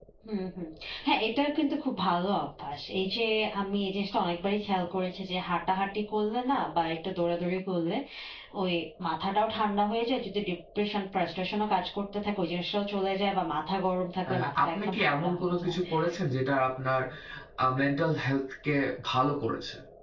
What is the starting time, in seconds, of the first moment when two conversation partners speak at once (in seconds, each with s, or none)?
14.3 s